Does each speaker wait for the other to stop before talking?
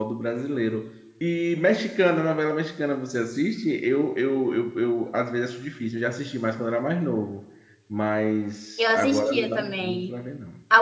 No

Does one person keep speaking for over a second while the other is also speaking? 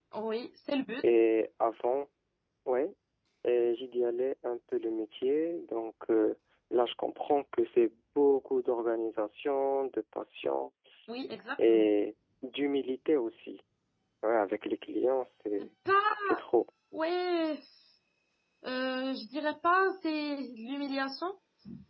No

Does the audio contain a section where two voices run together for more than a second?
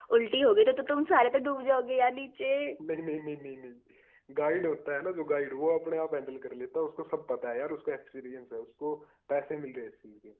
No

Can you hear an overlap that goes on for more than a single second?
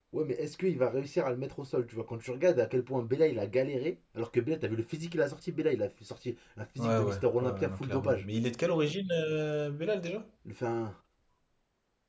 Yes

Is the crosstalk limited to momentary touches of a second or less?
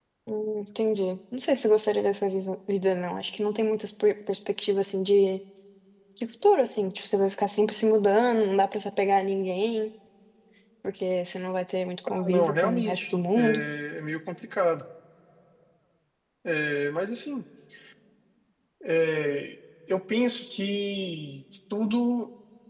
No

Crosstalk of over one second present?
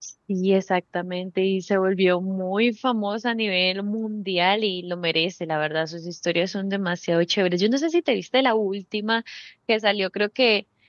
No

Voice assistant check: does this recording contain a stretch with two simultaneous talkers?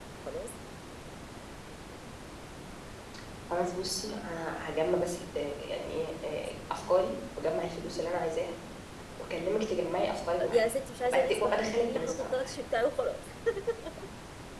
Yes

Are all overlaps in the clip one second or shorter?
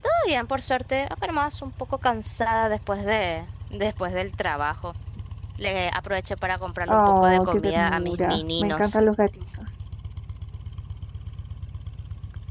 No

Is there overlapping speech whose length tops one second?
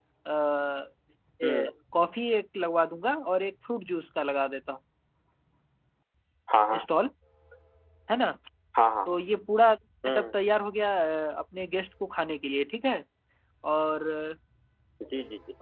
No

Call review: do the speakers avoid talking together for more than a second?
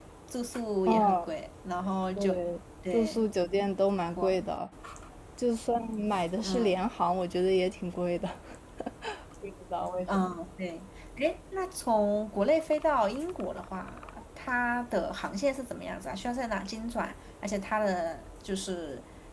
Yes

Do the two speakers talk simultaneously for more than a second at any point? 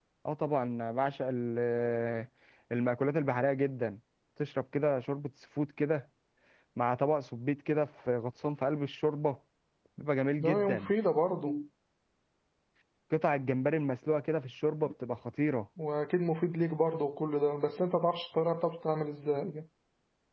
No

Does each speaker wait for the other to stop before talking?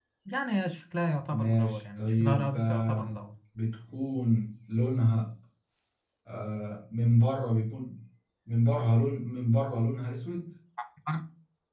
No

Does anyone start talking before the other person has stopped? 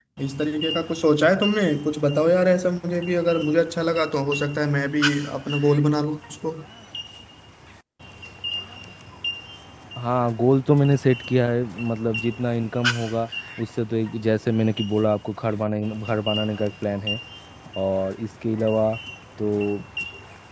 No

